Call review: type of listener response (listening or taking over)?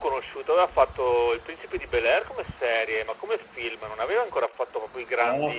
taking over